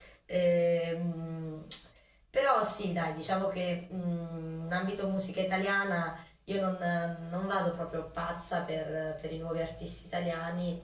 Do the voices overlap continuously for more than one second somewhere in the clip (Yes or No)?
No